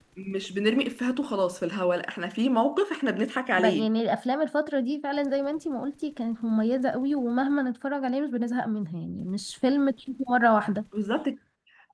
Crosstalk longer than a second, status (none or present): none